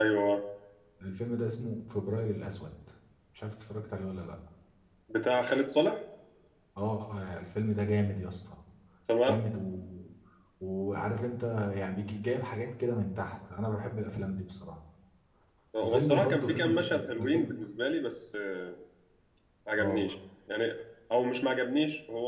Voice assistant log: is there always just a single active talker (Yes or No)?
No